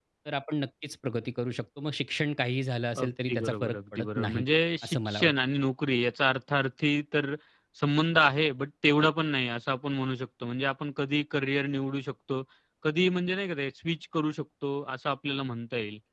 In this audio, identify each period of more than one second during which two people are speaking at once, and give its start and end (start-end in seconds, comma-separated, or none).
3.0-4.4